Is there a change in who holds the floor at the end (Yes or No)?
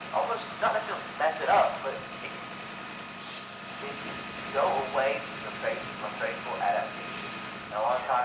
No